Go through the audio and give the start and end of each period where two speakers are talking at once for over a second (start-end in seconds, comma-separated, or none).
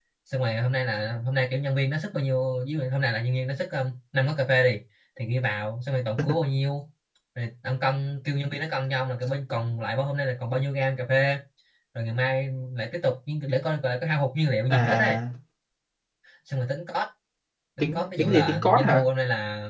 17.8-19.0